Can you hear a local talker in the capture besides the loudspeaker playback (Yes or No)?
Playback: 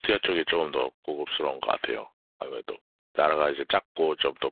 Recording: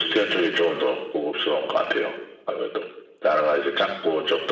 No